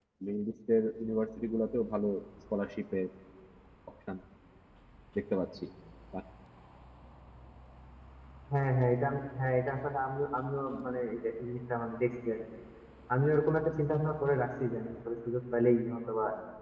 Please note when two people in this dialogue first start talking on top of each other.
none

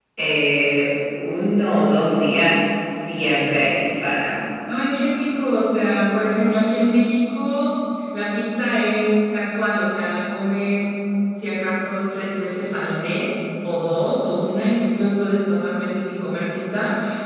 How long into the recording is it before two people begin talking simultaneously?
none

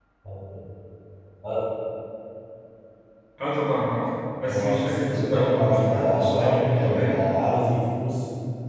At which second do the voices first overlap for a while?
4.5 s

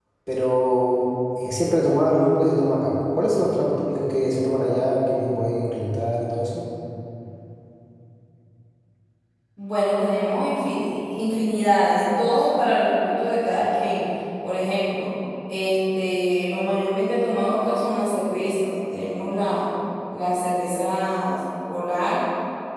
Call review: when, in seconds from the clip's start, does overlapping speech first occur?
none

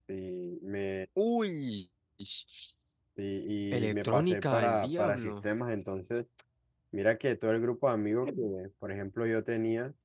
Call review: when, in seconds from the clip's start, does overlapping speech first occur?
3.7 s

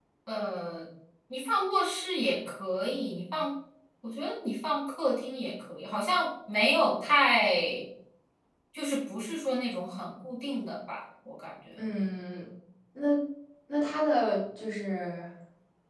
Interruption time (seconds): none

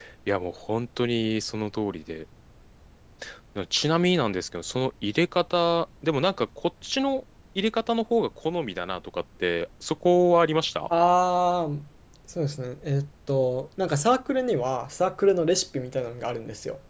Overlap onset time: none

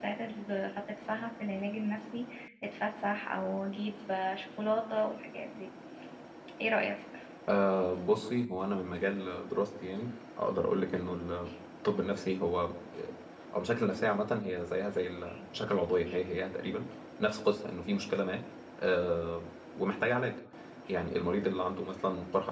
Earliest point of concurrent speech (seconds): none

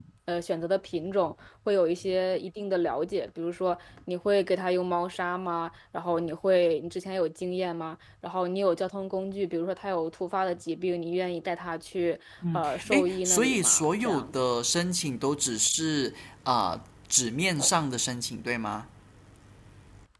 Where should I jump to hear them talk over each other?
12.4 s

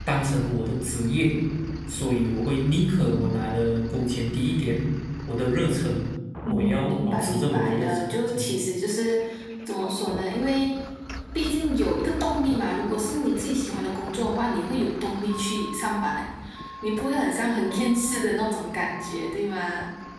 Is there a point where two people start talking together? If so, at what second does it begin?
6.4 s

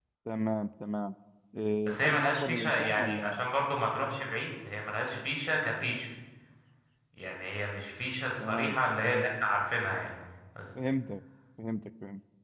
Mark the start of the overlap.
1.9 s

